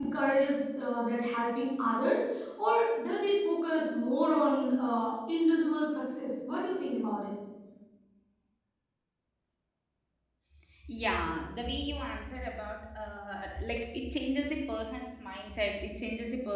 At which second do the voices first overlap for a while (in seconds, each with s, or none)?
none